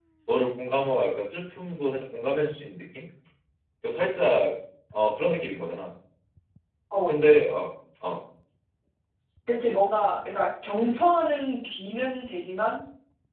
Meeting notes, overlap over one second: none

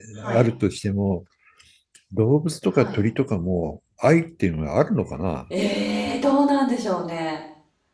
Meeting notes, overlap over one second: none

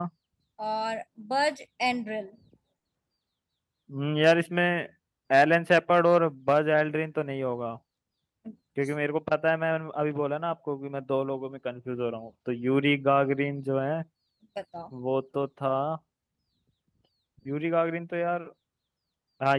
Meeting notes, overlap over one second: none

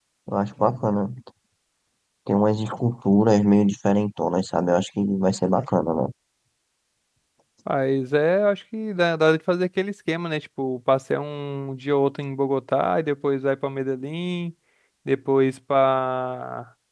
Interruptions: none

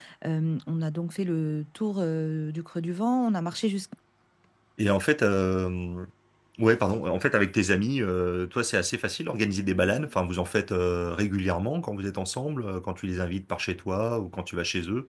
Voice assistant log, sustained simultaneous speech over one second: none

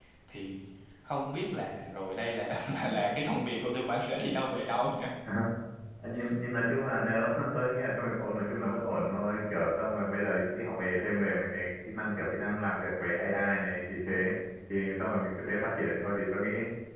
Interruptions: none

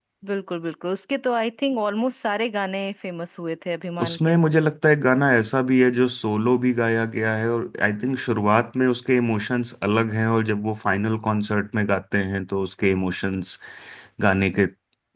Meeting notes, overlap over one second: none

